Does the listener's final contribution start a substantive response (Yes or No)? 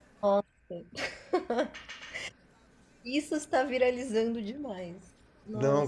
Yes